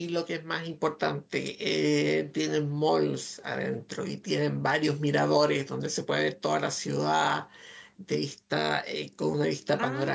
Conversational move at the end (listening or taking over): taking over